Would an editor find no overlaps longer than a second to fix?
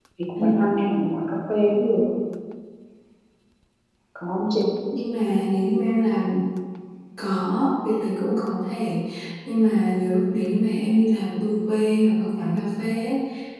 Yes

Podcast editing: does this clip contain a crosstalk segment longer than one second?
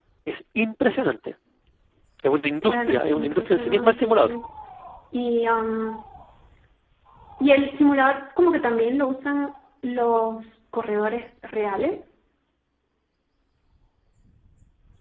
Yes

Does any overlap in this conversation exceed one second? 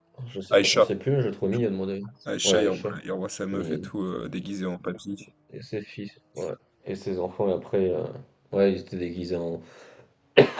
No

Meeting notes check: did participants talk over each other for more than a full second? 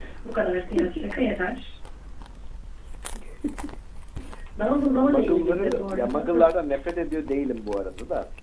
Yes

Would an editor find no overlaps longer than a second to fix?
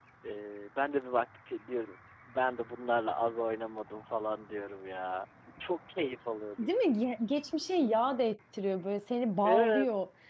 Yes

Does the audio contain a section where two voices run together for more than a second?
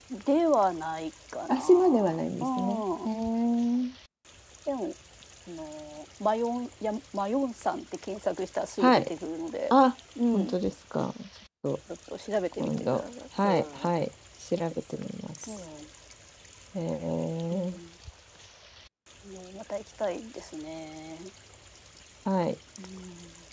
Yes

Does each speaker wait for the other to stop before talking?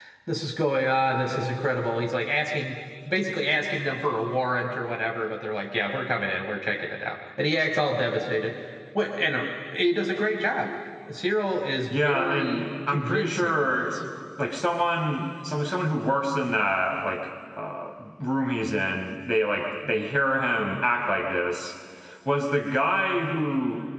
No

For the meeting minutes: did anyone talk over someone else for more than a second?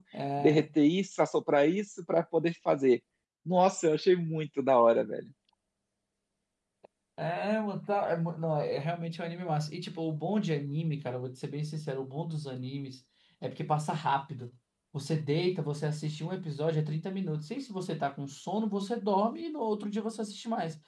No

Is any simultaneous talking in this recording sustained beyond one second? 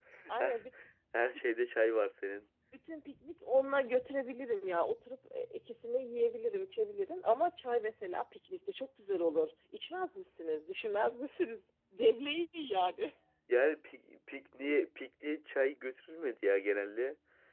No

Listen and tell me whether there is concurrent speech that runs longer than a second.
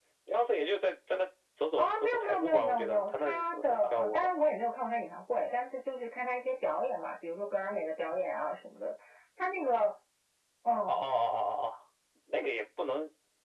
Yes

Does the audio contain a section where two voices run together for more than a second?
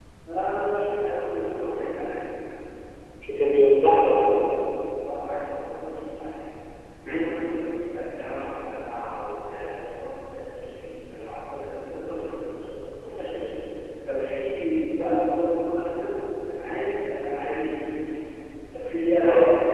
No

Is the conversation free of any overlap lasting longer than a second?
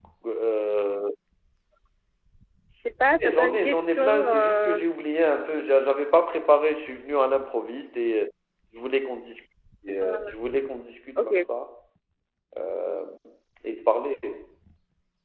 No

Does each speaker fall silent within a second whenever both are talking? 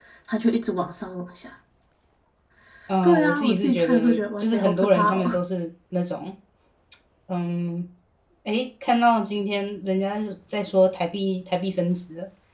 No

